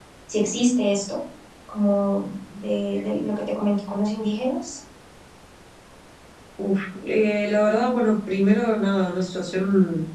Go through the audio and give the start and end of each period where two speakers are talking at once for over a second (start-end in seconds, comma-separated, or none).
none